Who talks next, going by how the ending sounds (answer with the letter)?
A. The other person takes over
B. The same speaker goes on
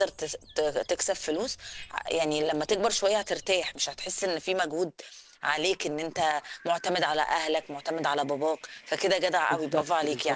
A